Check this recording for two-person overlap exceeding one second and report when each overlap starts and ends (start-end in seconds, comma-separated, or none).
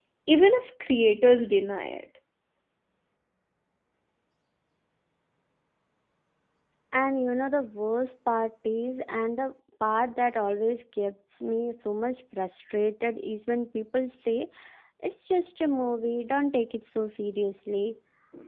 none